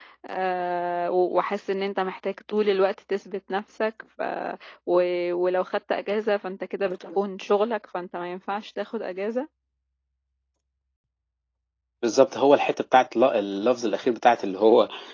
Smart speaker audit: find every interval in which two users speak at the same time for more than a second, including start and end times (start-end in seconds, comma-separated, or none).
none